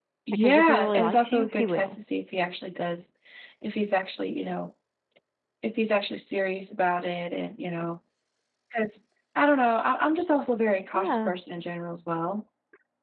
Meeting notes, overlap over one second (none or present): present